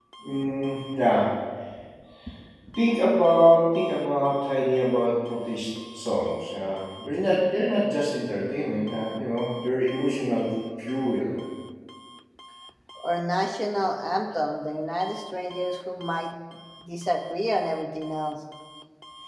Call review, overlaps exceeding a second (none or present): none